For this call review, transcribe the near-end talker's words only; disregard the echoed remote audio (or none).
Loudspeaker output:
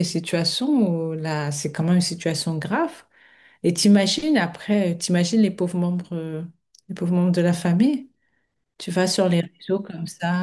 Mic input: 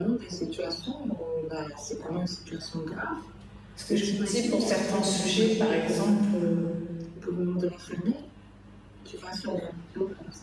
Parce que je me dis pour certains sujets, par exemple, euh,